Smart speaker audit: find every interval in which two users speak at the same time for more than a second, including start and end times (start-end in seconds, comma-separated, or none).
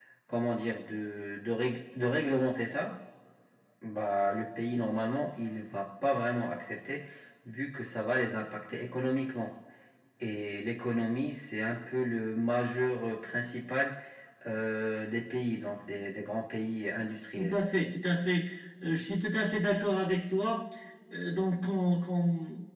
none